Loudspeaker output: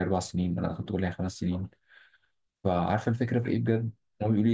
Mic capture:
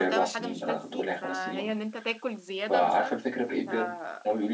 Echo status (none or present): present